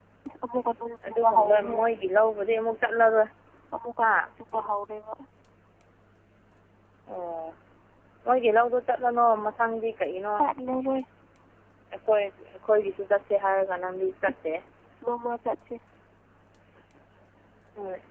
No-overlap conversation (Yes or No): No